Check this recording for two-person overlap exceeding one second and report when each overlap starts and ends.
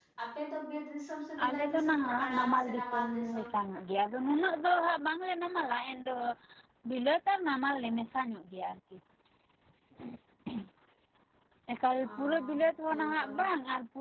1.4-3.5

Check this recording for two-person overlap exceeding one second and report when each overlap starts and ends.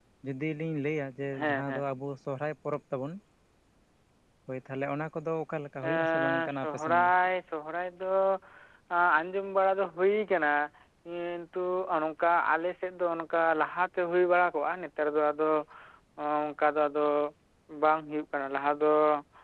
5.8-7.1

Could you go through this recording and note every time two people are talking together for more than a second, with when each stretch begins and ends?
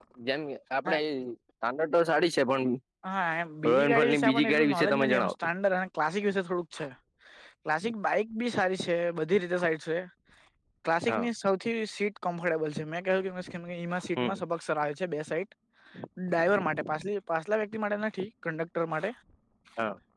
3.7-5.3

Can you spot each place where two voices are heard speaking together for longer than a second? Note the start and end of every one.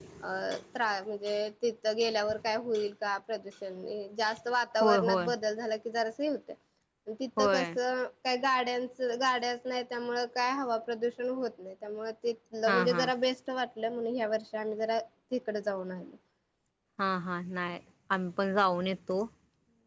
none

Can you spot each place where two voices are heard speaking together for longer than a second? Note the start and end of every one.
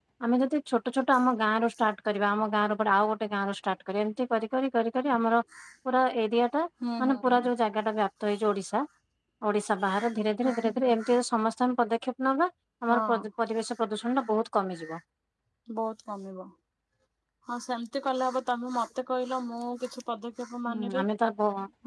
none

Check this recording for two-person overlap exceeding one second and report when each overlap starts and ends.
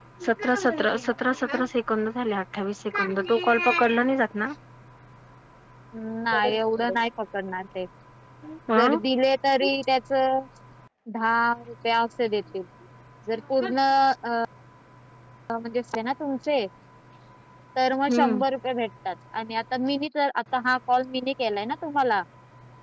none

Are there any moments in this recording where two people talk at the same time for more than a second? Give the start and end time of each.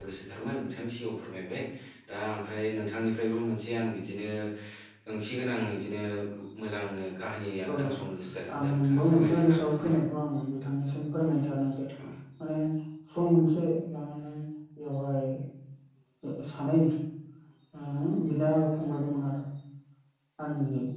8.6-9.9

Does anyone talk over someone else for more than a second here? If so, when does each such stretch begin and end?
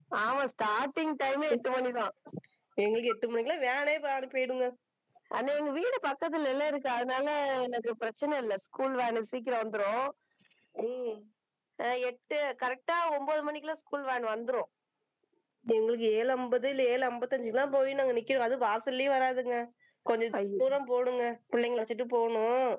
none

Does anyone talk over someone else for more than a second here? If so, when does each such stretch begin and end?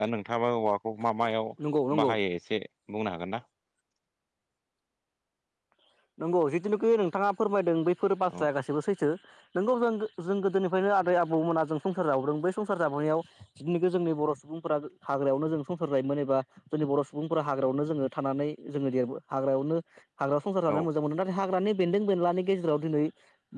none

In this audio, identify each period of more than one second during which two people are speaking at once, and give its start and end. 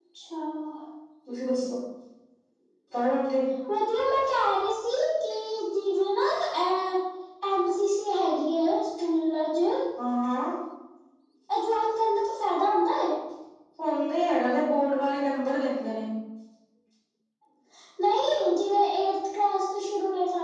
none

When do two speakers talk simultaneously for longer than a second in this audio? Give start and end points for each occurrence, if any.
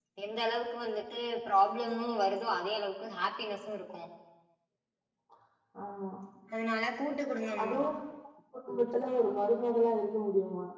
none

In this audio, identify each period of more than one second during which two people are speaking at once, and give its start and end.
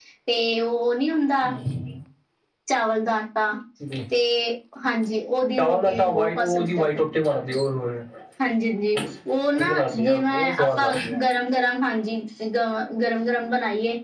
5.6-7.0, 9.6-11.2

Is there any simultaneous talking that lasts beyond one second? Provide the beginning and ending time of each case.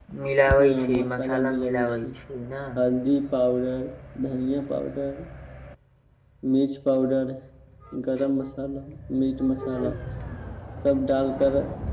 0.5-2.1

